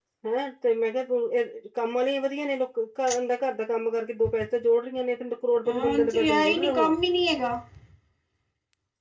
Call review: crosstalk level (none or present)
present